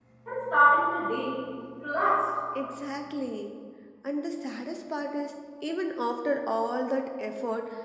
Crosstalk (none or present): none